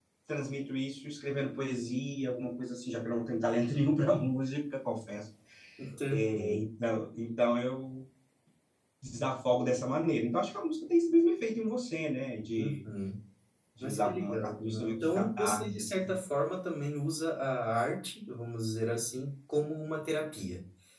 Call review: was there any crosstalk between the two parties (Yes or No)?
Yes